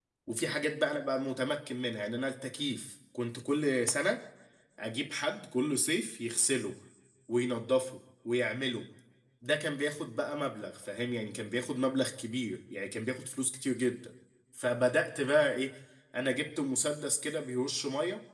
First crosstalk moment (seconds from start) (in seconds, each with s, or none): none